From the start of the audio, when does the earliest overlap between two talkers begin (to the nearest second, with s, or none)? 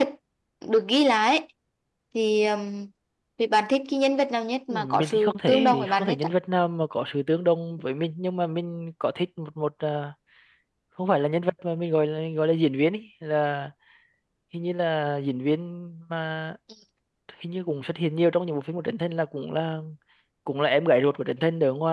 5 s